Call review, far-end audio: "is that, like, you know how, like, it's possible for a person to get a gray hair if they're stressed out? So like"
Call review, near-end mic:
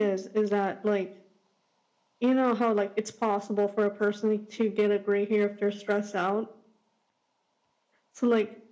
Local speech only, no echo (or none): none